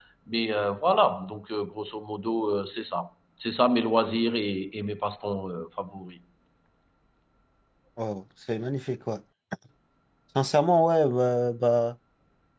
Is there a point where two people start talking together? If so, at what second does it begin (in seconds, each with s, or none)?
none